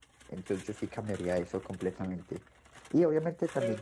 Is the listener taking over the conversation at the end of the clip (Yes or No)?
No